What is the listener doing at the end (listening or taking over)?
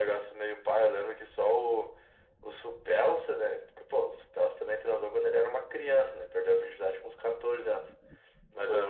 listening